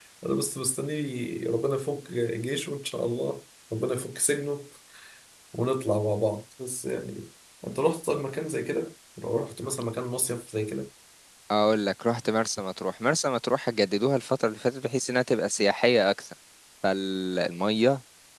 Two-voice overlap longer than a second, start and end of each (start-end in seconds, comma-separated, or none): none